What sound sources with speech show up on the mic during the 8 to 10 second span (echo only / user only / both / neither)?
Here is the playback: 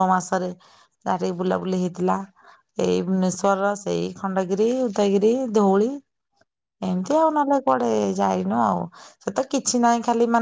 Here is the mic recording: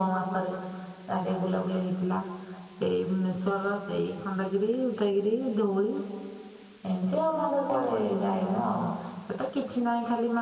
echo only